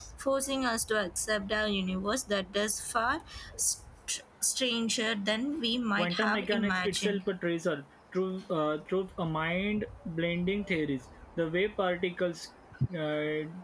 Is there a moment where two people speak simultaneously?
Yes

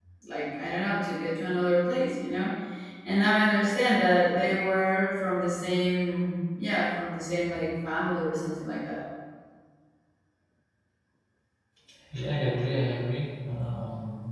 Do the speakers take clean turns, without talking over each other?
Yes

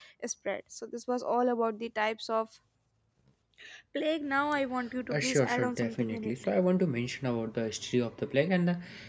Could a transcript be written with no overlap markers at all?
No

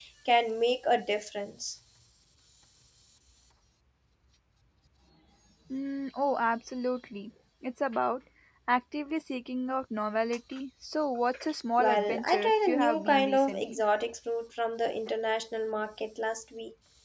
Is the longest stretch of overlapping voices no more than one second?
No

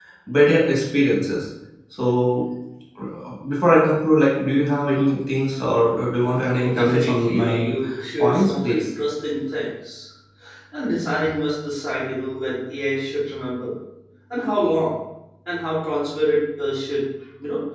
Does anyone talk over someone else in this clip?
Yes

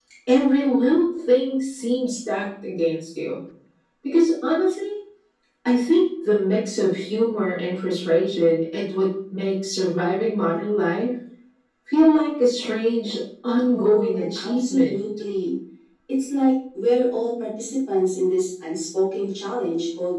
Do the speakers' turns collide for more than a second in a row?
Yes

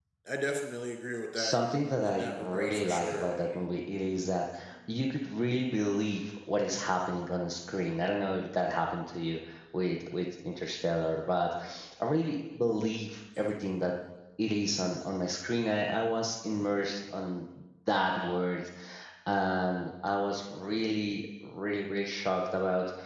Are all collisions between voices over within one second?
No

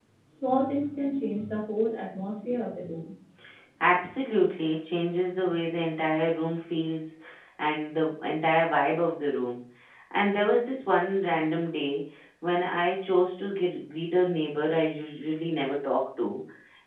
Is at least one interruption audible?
No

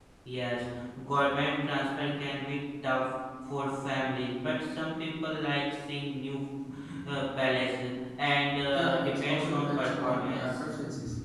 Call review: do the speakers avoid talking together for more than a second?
No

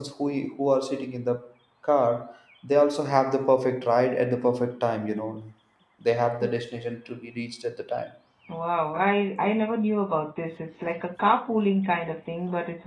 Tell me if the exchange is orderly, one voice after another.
Yes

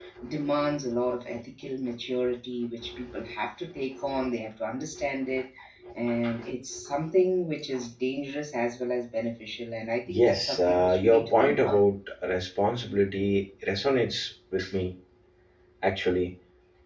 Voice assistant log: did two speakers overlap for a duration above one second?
Yes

